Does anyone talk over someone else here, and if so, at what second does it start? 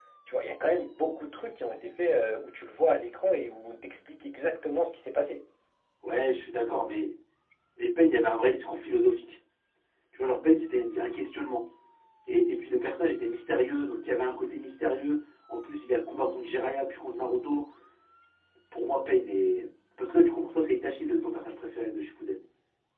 none

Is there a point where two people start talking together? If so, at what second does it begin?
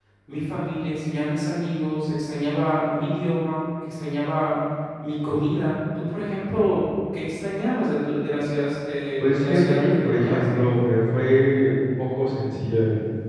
9.2 s

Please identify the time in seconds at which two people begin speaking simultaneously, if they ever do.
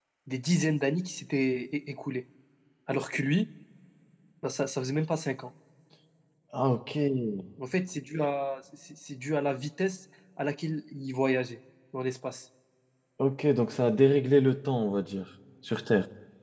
none

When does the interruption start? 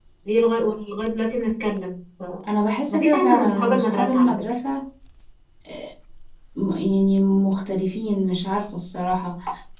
2.9 s

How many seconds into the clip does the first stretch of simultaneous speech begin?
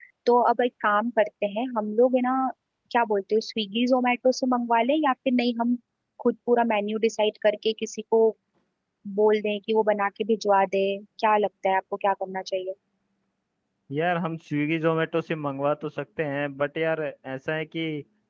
none

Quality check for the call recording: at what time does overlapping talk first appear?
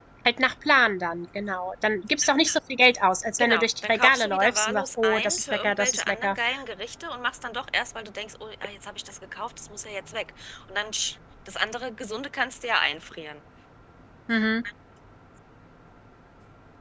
3.4 s

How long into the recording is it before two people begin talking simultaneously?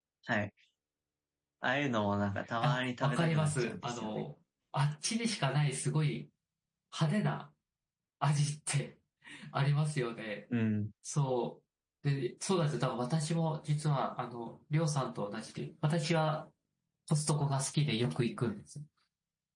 2.6 s

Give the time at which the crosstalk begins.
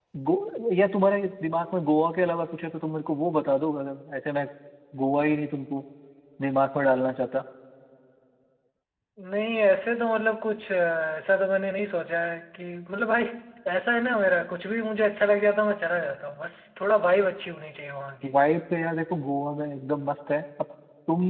none

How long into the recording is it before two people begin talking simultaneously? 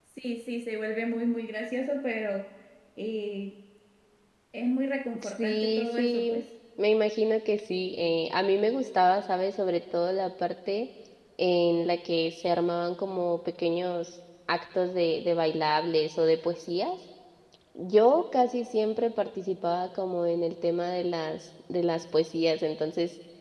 5.2 s

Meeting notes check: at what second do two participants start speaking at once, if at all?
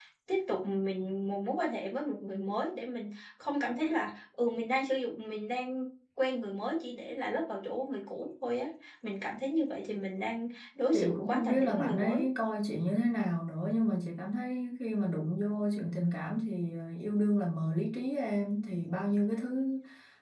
10.9 s

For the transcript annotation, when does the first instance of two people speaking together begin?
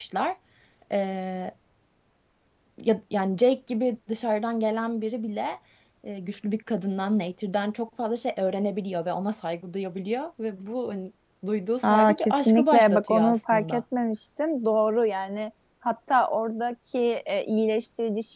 11.8 s

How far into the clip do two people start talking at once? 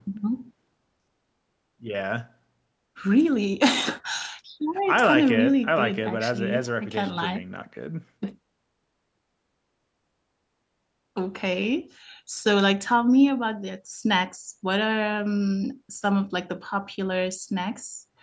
4.9 s

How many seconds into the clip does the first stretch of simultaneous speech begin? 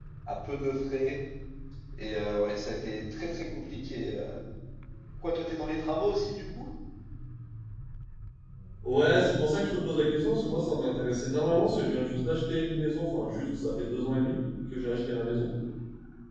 none

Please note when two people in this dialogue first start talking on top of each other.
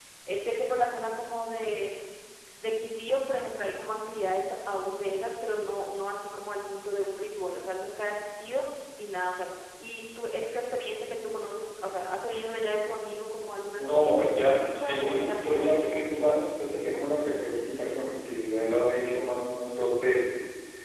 13.8 s

